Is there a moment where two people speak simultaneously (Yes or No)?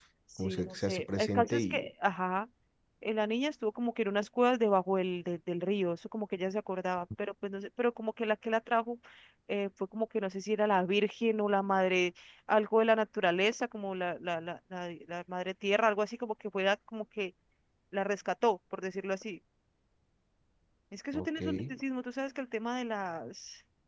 Yes